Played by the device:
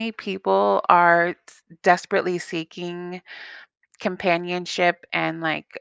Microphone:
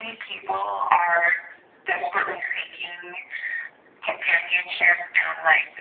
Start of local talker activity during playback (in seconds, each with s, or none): none